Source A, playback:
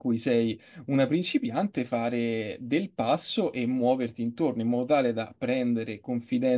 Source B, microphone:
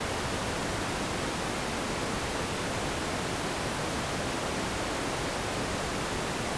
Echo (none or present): none